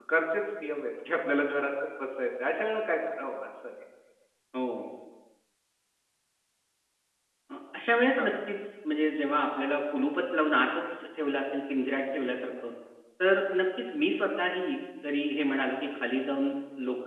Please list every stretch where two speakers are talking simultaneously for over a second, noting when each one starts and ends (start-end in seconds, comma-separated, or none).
none